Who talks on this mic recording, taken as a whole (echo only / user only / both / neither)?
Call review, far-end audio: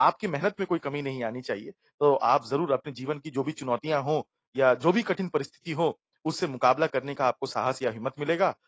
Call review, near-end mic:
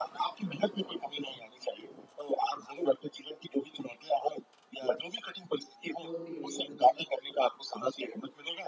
both